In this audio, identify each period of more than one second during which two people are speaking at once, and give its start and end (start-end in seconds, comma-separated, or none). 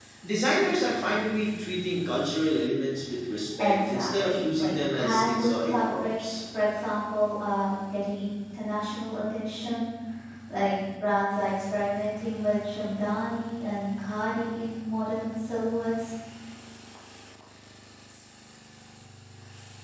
3.6-6.3